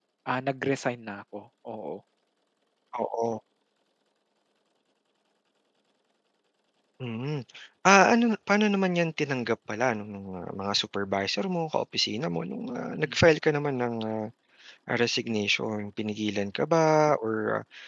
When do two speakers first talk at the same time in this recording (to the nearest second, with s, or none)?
none